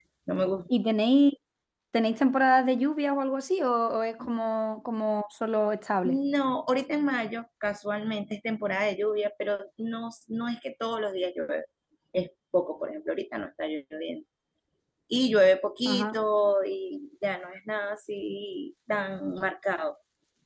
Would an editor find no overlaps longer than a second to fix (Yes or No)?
Yes